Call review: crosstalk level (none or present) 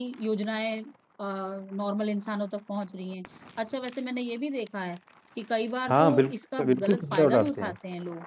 present